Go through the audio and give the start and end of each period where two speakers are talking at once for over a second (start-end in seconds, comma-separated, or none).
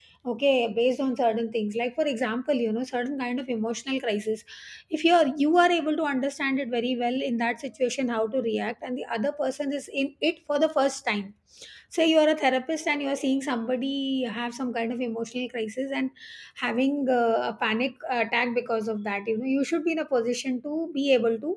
none